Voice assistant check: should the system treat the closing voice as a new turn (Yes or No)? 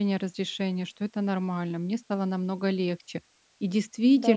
No